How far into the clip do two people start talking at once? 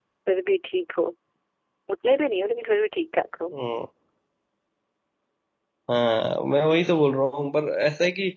none

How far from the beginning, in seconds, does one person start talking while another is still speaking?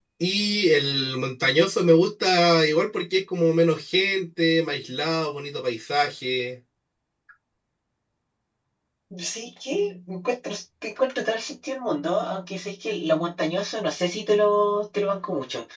none

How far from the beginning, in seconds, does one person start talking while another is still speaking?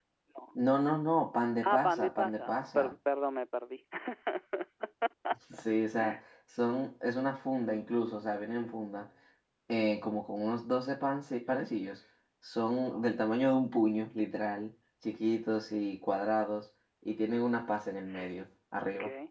1.6 s

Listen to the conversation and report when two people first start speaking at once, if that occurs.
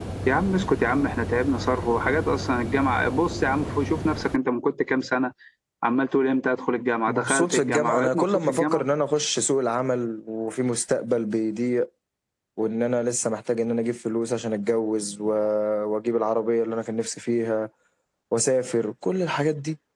7.1 s

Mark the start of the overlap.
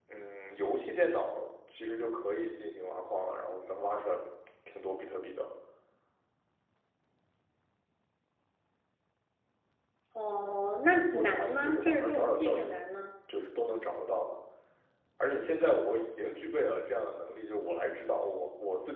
11.2 s

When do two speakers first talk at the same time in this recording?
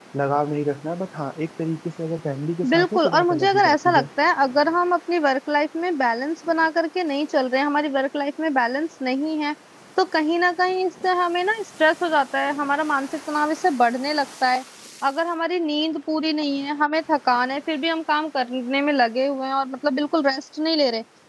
2.6 s

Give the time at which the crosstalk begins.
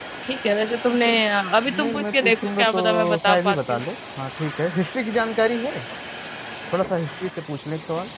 1.7 s

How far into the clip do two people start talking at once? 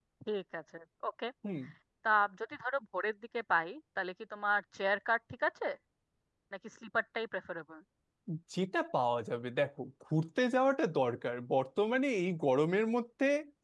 none

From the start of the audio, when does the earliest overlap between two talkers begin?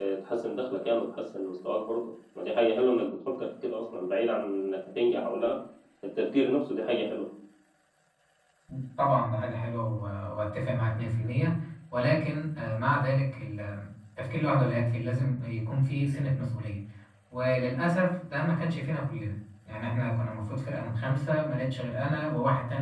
none

